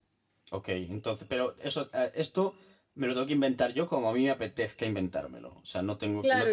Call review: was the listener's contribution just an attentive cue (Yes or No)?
No